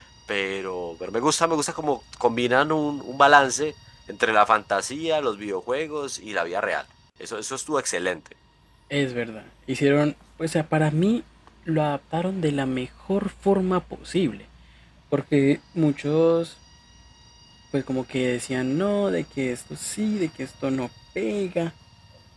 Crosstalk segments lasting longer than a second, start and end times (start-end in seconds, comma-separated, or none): none